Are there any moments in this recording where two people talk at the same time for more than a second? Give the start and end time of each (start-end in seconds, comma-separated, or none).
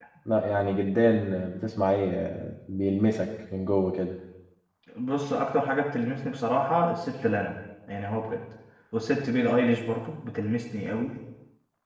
none